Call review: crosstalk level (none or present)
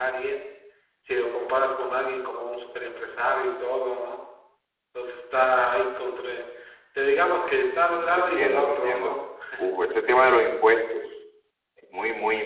present